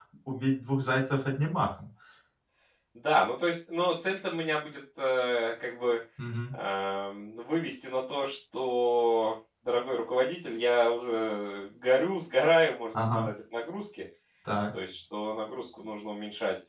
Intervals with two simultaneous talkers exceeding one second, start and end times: none

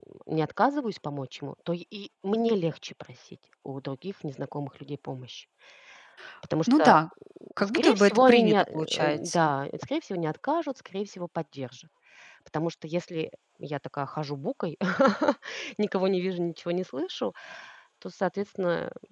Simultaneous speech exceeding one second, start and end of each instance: 7.7-9.5

